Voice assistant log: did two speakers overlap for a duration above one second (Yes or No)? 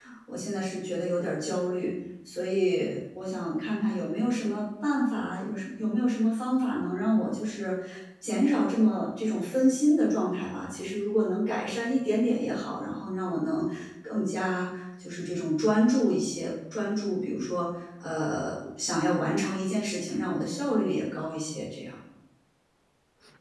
No